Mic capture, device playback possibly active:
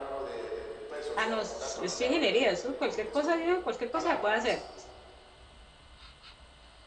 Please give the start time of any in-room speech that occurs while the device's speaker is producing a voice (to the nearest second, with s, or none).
1 s